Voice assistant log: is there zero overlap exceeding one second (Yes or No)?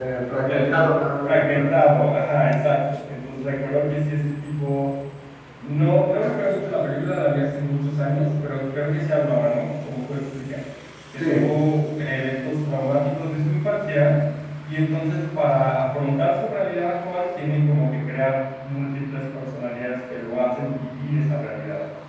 No